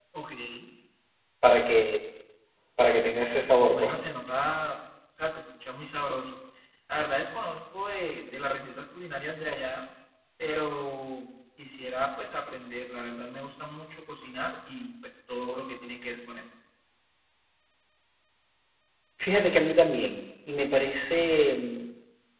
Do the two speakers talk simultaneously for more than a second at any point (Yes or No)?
No